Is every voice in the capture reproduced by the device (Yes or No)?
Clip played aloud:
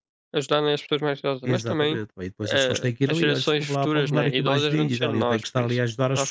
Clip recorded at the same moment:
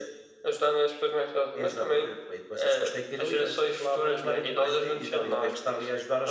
Yes